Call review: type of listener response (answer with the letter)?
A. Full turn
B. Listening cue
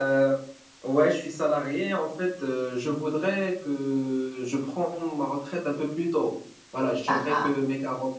B